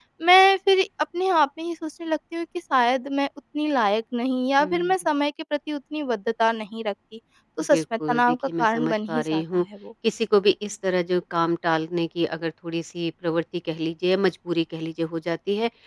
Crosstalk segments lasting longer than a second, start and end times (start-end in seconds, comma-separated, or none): 7.7-9.4